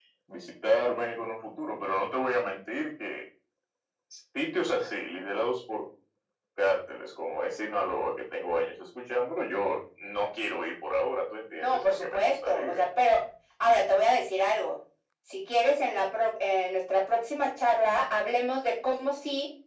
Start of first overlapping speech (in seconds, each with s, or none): 11.6 s